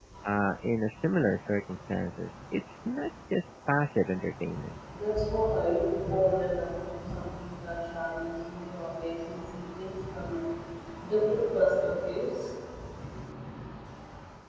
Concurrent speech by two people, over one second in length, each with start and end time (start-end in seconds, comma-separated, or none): none